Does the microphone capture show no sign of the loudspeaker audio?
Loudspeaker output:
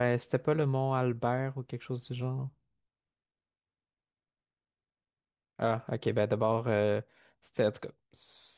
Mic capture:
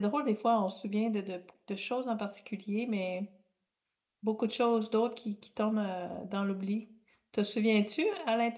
Yes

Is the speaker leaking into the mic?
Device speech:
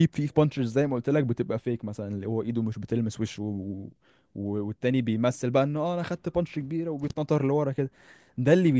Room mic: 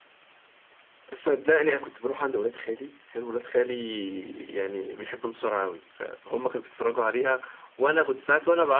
No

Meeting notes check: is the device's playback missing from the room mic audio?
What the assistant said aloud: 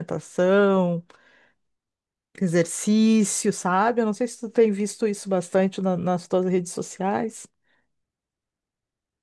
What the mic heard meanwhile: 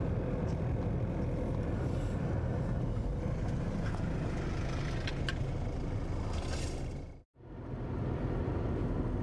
Yes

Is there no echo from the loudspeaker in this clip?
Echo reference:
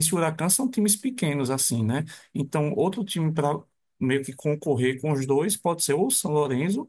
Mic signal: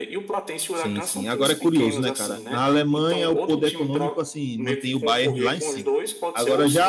No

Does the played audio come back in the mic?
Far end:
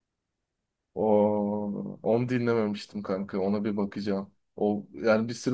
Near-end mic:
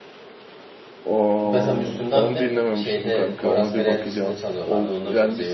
Yes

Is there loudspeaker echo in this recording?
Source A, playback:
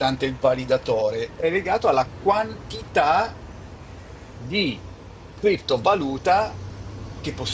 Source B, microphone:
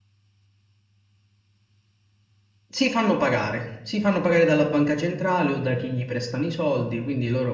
No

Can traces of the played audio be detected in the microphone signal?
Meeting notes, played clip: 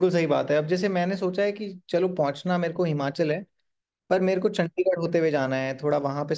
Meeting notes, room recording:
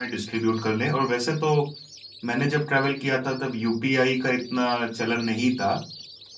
No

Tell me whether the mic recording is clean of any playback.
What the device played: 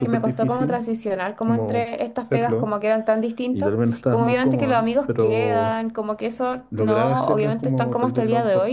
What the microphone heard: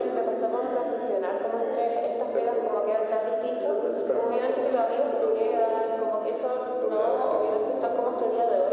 No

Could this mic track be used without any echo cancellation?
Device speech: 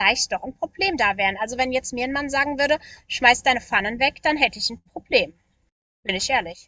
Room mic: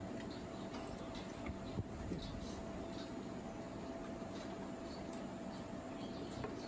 Yes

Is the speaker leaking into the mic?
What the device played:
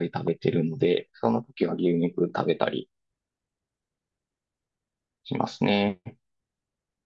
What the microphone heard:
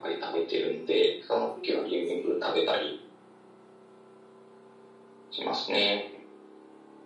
Yes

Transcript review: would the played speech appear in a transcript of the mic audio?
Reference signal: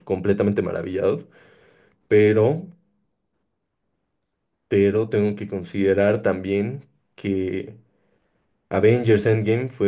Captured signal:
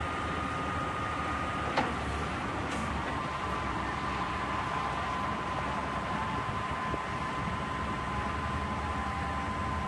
No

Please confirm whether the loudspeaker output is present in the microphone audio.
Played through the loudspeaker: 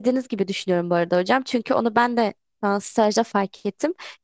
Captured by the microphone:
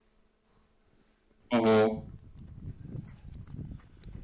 No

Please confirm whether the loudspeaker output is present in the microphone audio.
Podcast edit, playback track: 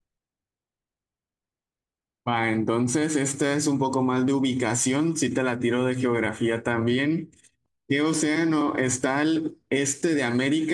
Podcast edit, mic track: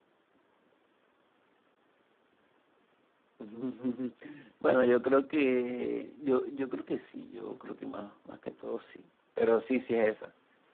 No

